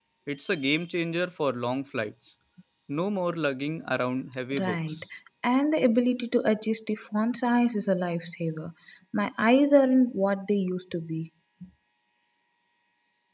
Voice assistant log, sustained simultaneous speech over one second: none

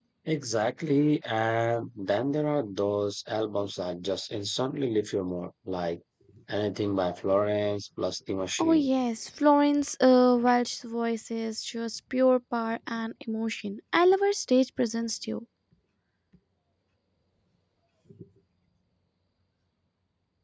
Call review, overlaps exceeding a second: none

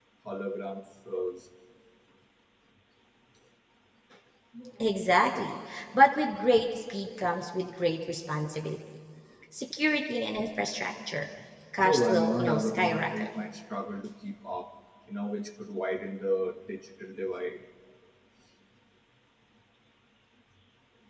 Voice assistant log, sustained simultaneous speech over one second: present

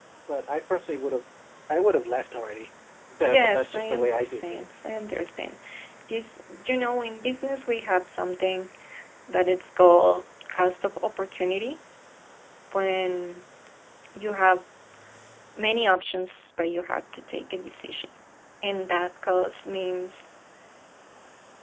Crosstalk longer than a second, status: present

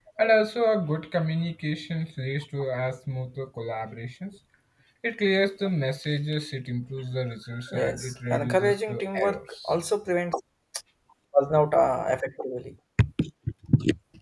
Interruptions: present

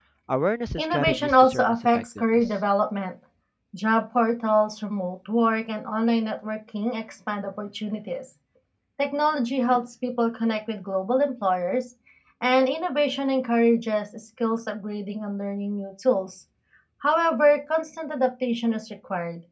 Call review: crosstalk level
present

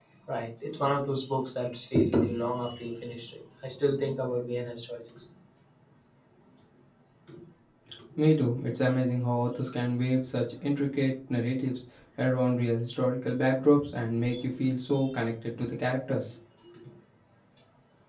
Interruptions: none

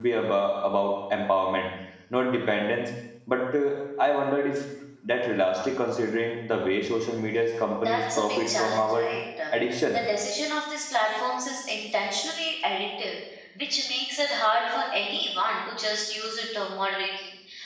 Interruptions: present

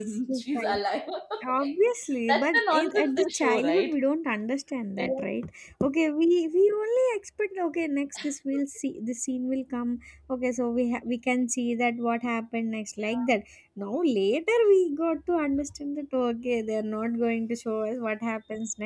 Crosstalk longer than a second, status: present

